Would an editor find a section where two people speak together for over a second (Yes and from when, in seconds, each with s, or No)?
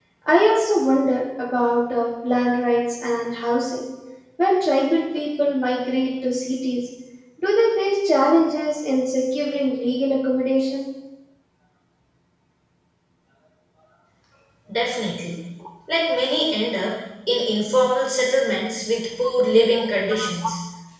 No